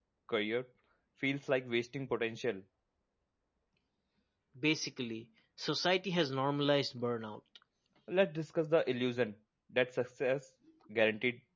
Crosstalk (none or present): none